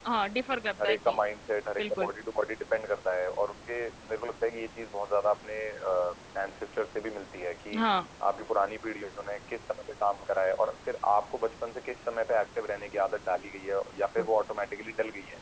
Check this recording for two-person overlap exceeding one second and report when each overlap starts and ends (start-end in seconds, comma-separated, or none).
none